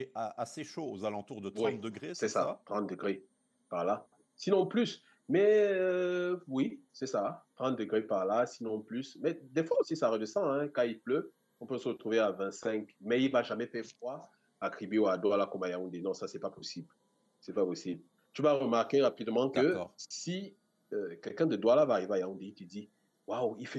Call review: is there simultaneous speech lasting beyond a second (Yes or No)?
No